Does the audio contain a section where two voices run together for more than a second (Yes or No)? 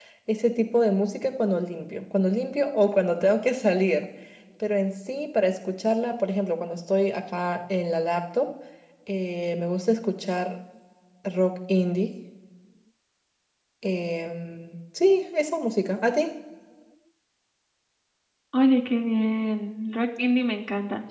No